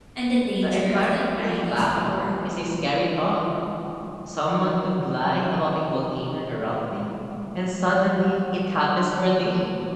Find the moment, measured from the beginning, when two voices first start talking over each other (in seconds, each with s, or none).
0.6 s